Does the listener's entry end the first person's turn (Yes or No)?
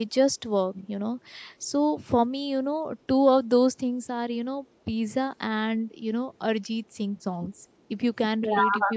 No